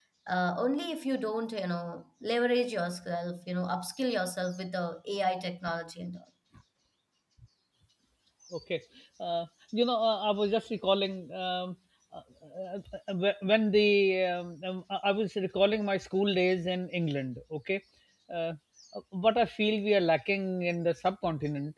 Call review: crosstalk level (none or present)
none